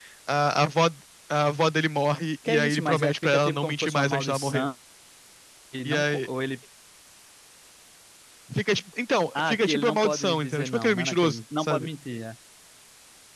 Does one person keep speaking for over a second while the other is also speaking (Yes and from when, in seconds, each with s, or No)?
Yes, from 2.5 s